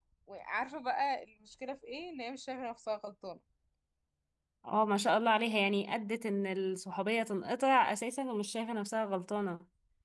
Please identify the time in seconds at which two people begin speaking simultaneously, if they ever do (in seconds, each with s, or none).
none